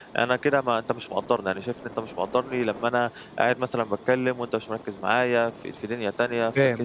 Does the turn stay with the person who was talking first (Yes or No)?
No